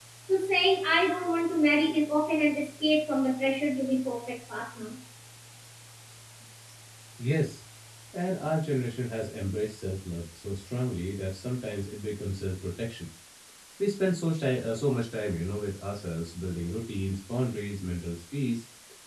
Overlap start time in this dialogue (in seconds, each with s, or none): none